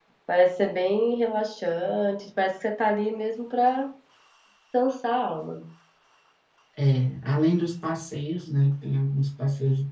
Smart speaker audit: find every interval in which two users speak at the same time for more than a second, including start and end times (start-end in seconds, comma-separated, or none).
none